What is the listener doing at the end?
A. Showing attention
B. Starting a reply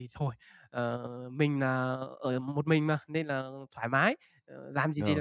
A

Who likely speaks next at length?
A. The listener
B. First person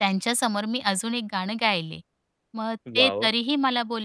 B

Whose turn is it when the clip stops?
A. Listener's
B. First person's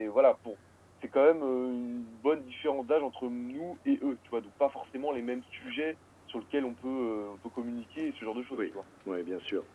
A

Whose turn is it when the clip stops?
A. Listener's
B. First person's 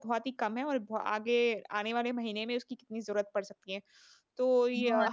B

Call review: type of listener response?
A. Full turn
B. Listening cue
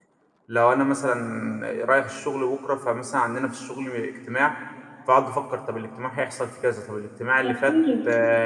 B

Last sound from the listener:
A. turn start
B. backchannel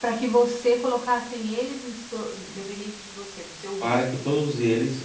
A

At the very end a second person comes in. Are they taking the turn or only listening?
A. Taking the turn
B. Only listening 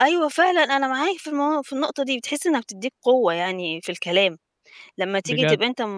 B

